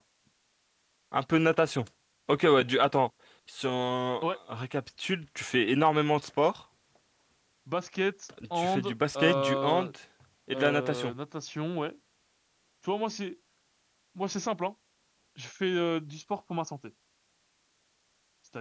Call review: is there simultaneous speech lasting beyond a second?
Yes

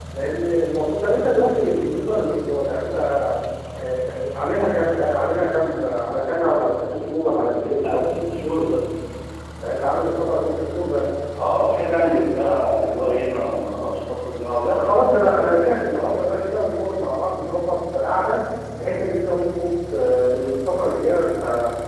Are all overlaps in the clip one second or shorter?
Yes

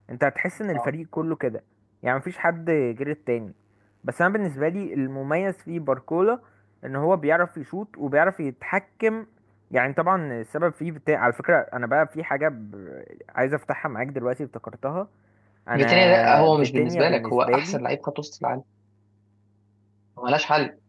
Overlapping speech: Yes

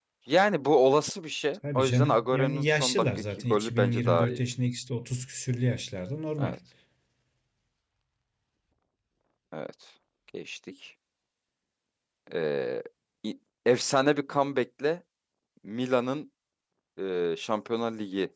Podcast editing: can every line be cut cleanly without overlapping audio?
No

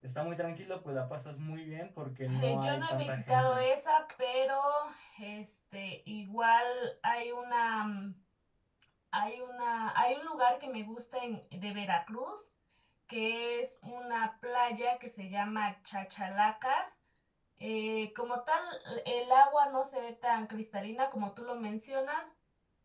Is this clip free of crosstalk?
No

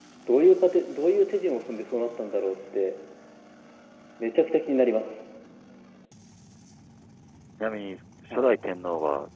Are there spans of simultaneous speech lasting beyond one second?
No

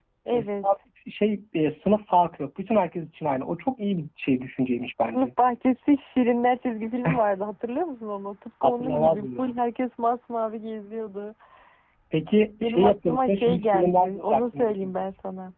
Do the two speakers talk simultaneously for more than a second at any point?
Yes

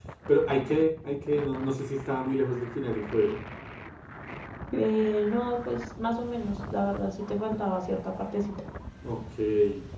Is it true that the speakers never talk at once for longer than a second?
Yes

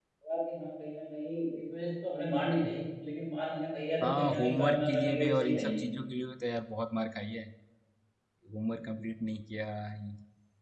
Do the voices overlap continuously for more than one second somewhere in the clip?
Yes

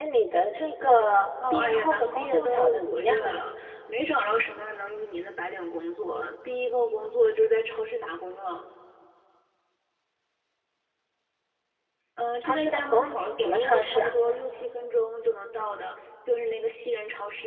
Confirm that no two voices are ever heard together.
No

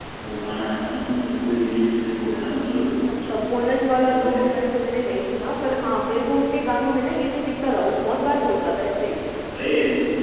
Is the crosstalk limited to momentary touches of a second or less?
Yes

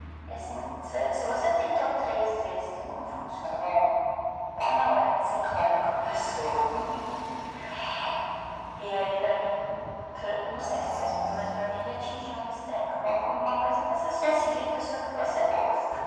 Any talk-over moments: Yes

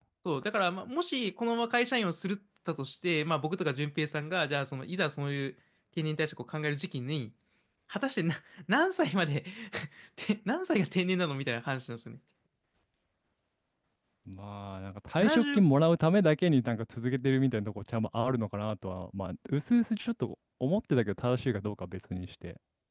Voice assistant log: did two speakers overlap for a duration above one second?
No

